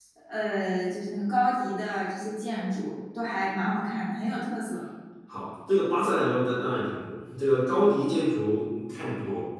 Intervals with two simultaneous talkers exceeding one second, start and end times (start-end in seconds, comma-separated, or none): none